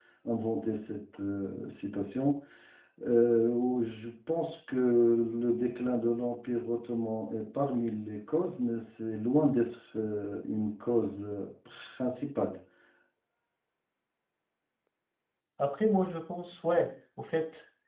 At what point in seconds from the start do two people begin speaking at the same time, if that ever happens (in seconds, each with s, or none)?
none